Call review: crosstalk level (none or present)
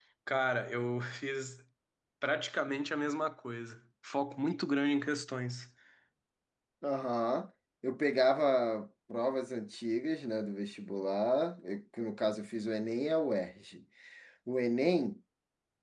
none